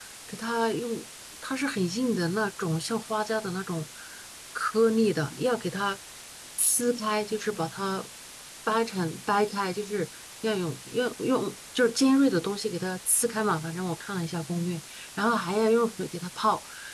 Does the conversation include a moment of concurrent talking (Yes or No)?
No